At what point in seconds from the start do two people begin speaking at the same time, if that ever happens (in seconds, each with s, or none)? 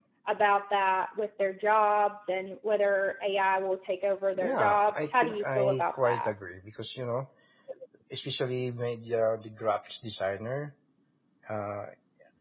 4.4 s